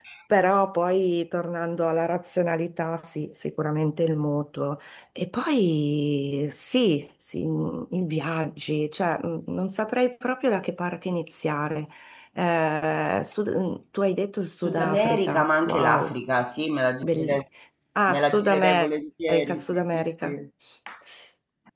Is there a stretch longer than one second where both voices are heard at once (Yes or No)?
Yes